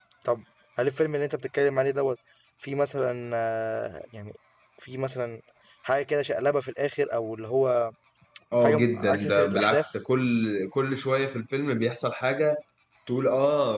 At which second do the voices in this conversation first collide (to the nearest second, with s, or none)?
9 s